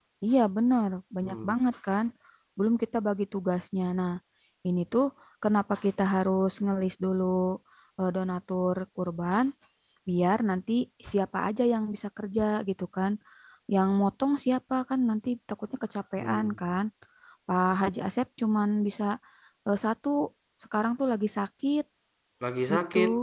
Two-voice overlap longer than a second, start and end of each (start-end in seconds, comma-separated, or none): none